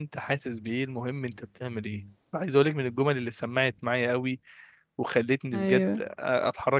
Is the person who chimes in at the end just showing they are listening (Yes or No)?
Yes